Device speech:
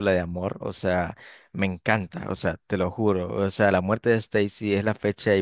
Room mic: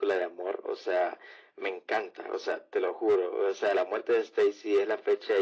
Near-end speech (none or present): none